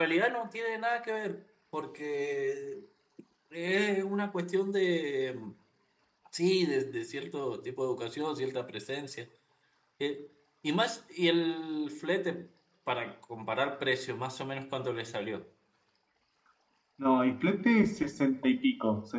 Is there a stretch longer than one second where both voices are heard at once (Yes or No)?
No